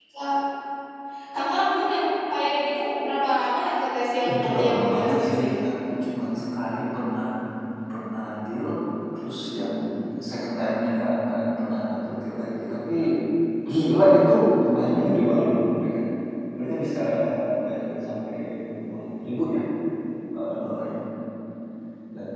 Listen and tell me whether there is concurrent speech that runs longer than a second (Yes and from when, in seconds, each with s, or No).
Yes, from 4.2 s